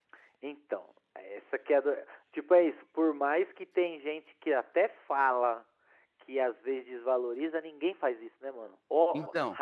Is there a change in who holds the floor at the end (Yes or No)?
No